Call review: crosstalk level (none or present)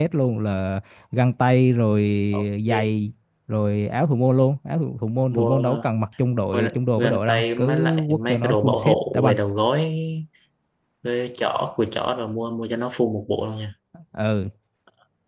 present